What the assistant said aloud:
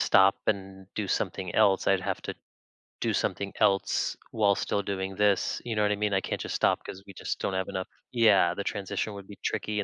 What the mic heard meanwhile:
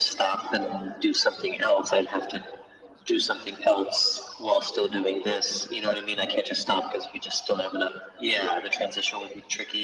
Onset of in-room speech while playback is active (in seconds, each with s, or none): none